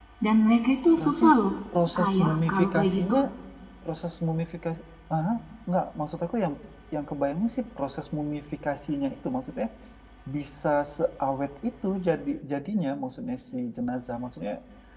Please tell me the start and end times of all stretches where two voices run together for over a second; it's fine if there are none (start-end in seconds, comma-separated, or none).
2.0-3.2